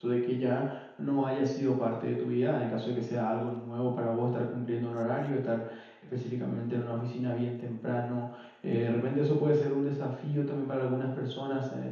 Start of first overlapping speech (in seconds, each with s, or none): none